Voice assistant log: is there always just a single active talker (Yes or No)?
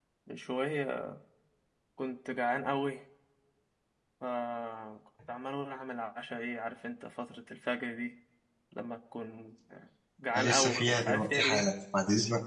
No